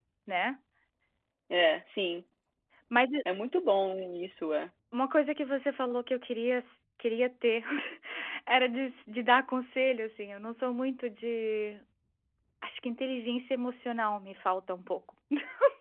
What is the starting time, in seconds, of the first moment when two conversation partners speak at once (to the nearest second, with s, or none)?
none